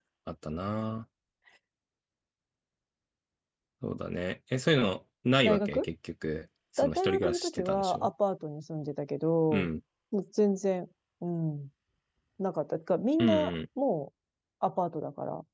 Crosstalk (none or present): present